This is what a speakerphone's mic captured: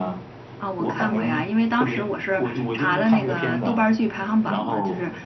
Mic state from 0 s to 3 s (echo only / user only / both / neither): both